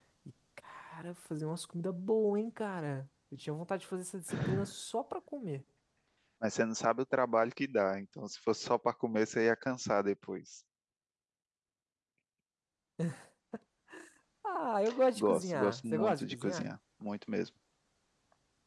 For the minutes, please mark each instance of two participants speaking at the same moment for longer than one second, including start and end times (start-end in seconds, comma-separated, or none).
15.2-16.7